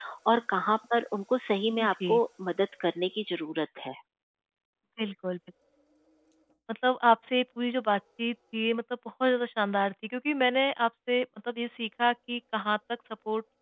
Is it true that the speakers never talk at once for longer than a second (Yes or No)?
Yes